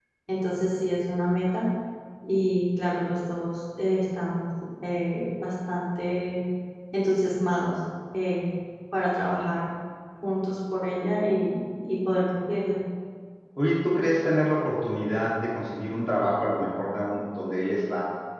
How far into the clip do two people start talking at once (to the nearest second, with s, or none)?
none